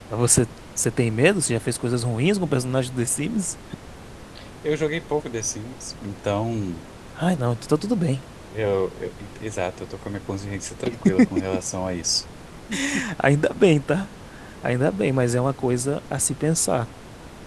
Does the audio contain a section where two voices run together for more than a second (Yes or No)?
No